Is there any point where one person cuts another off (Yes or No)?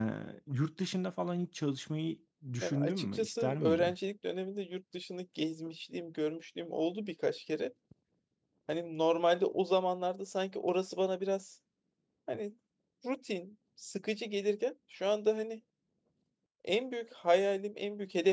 Yes